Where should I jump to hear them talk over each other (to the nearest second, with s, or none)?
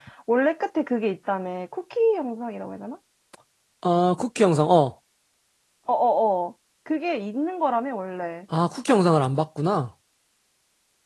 none